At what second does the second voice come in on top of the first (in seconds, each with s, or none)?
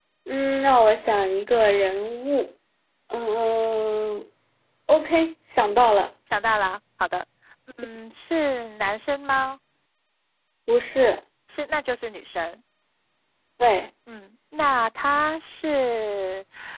none